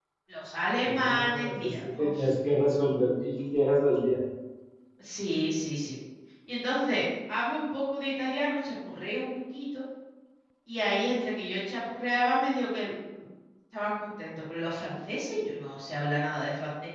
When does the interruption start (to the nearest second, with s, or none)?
1 s